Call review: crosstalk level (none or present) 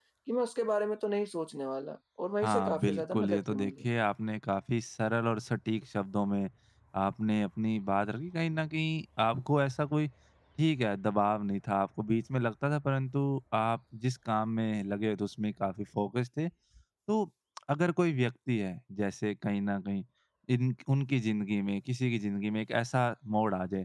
present